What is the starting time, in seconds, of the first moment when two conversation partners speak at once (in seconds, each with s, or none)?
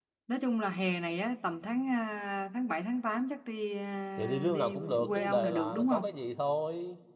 4.2 s